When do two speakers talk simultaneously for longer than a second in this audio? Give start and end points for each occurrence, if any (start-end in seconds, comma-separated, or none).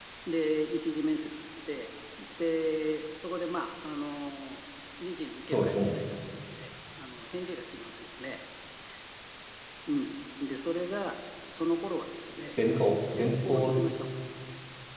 12.6-13.8